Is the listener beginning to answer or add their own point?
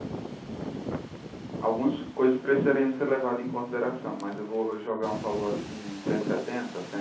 Yes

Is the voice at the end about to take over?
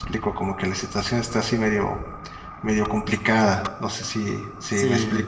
Yes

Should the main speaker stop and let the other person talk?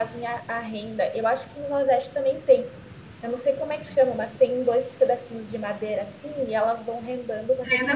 No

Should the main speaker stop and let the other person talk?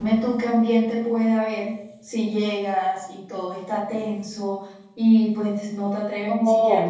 Yes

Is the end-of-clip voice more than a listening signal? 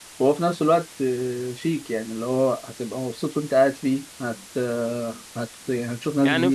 Yes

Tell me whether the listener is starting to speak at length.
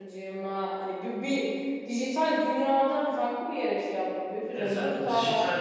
Yes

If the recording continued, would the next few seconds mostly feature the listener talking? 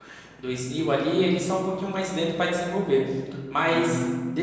No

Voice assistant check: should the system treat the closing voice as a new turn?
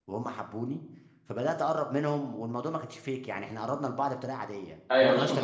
Yes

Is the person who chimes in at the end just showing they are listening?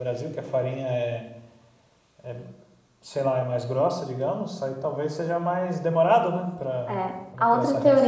No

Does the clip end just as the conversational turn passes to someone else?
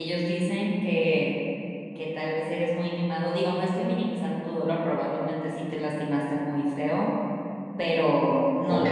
Yes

